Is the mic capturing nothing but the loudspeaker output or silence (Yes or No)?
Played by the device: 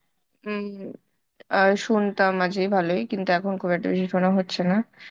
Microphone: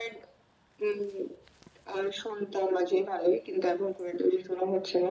Yes